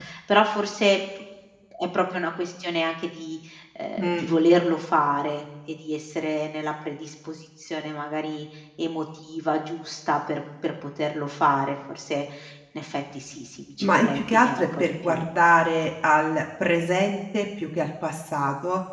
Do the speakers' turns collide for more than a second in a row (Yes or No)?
Yes